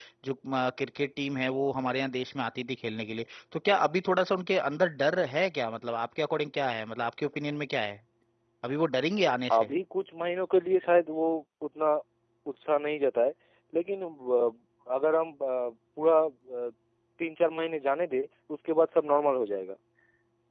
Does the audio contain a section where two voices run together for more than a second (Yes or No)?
No